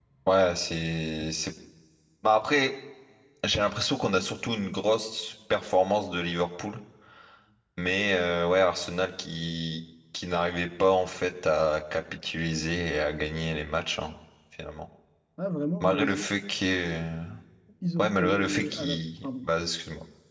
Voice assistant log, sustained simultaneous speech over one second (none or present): present